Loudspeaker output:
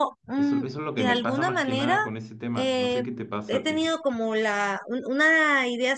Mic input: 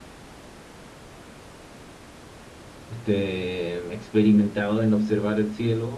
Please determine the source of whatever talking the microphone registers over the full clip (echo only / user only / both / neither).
user only